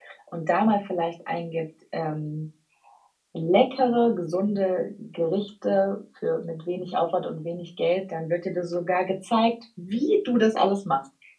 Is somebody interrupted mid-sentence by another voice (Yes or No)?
No